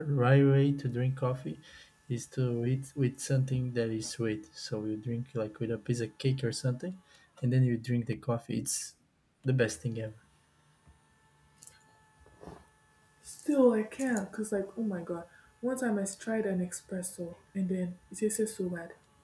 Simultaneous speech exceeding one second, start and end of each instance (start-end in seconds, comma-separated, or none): none